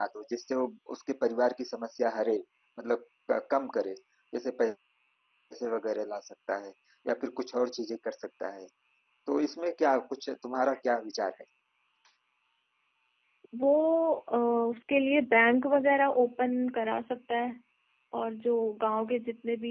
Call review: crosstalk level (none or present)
none